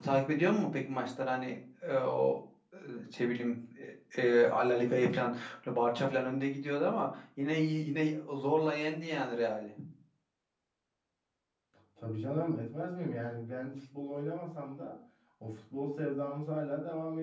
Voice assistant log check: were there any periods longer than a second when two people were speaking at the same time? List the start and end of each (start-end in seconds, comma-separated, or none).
none